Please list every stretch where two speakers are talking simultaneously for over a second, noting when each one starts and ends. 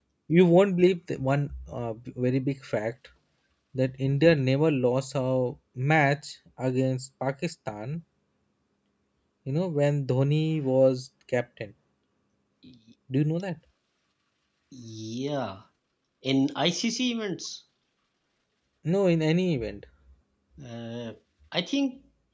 none

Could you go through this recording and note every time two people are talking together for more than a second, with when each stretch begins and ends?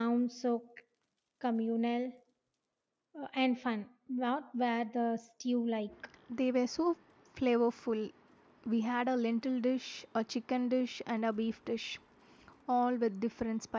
none

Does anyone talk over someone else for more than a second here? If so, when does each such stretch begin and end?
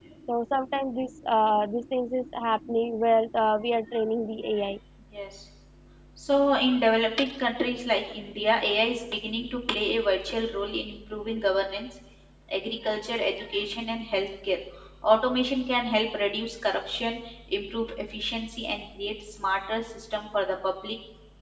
none

